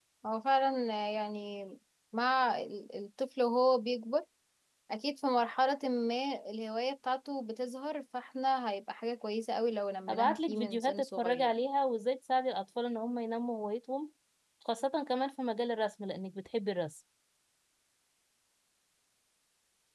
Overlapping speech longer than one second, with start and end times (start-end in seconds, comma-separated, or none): 10.1-11.6